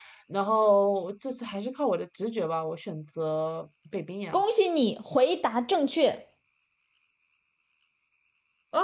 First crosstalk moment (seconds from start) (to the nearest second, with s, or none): none